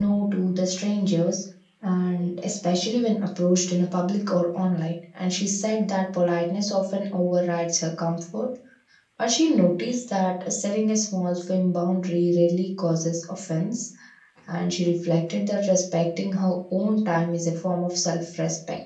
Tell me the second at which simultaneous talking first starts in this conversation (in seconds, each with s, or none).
none